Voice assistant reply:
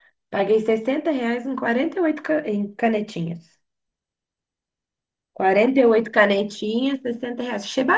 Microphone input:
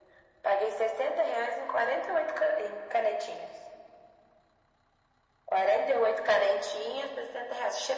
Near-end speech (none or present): none